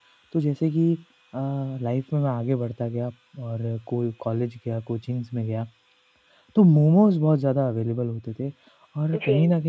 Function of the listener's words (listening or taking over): listening